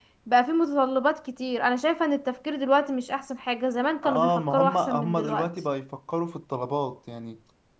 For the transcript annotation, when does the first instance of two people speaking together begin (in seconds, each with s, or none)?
4.0 s